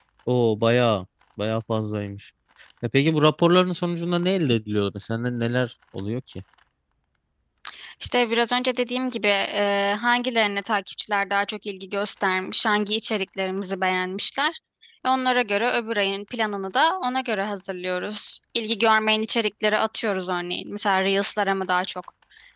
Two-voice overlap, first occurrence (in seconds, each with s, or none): none